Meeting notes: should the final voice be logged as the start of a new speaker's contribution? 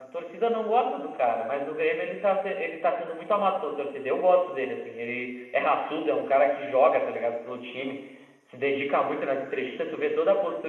No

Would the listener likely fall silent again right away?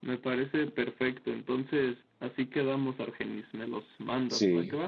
No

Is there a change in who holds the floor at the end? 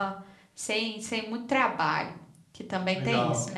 Yes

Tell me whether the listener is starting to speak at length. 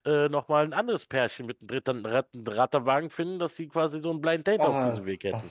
Yes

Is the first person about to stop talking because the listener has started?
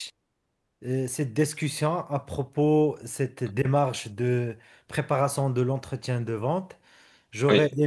No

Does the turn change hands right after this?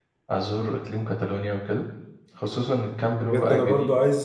Yes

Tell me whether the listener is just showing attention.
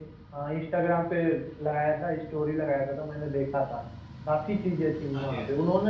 Yes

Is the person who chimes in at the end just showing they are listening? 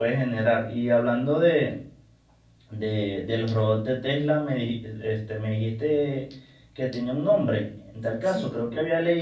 Yes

